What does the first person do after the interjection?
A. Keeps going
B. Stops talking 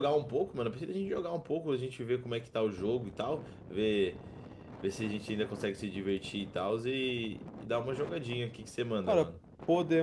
B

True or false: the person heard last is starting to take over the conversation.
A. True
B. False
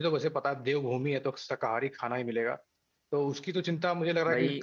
B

